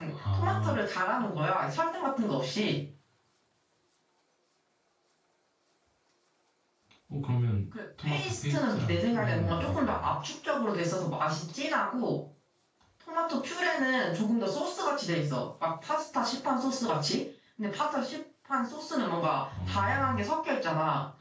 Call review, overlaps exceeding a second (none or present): present